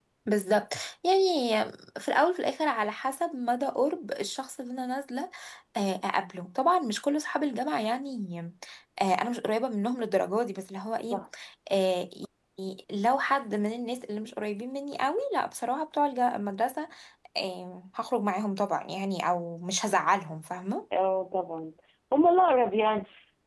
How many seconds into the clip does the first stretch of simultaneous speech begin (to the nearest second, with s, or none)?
none